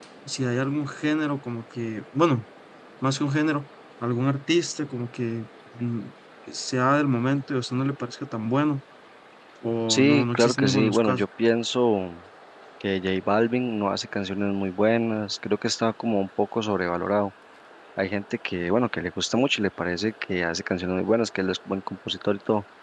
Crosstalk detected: Yes, from 9.9 s

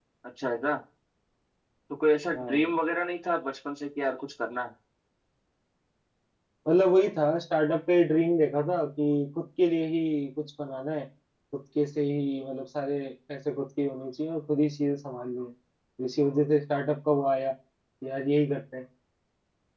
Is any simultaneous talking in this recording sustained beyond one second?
No

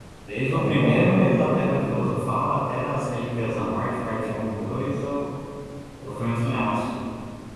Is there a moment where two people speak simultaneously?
Yes, from 0.5 s

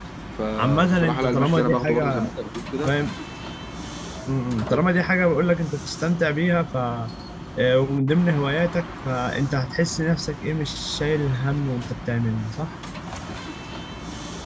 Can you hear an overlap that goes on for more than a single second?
Yes, from 0.6 s

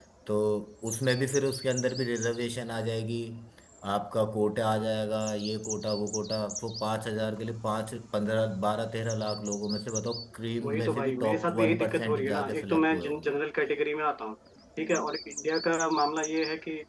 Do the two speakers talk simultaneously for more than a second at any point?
Yes, from 10.6 s

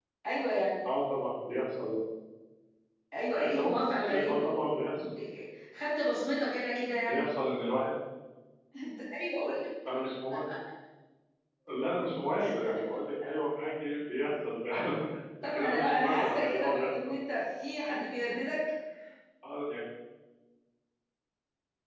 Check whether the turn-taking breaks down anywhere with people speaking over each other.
Yes, from 3.3 s

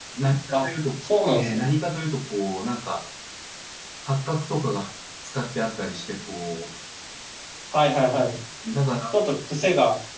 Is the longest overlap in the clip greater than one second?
No

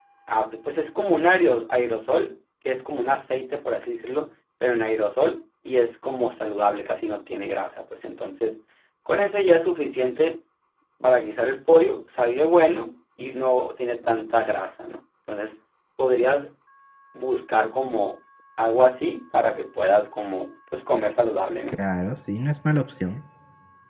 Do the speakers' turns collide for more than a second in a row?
No

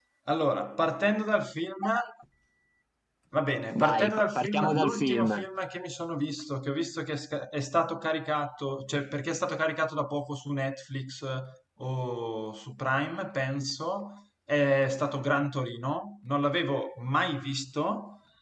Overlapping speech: Yes, from 3.7 s

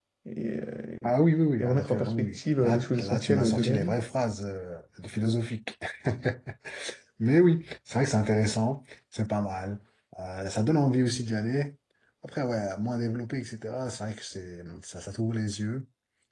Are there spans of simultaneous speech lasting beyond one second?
Yes, from 1.6 s

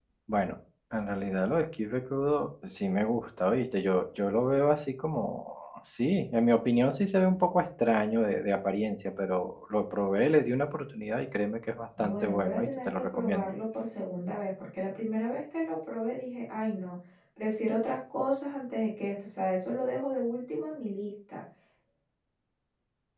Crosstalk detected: Yes, from 12.0 s

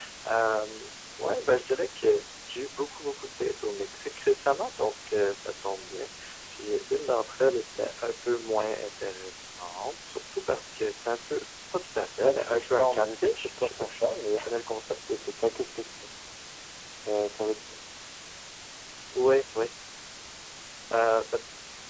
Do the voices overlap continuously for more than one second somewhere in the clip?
Yes, from 12.2 s

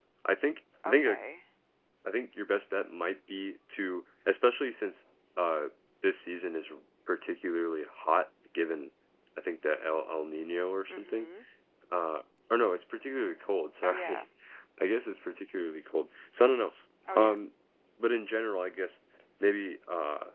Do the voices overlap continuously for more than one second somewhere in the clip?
No

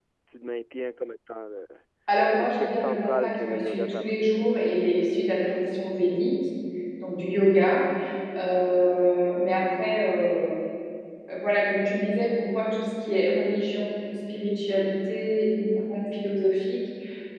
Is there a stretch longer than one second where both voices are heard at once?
Yes, from 2.3 s

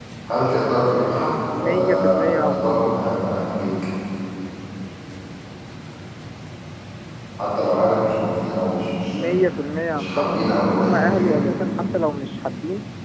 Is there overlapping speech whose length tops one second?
Yes, from 1.5 s

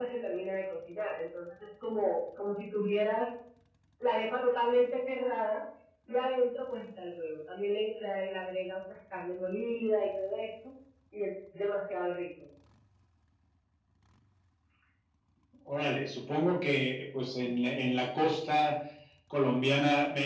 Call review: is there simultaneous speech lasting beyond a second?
No

